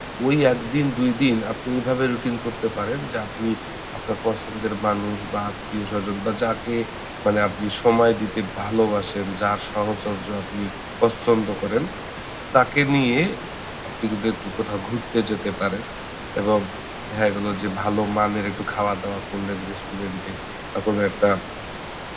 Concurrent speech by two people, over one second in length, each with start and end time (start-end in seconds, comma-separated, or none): none